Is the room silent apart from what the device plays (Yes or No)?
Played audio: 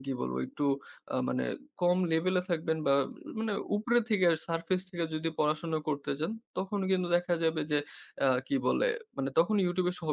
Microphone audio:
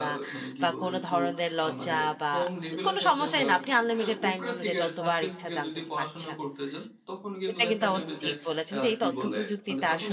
No